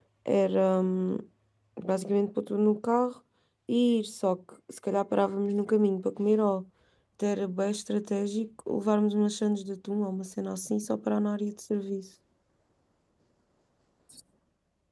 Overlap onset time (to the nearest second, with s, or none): none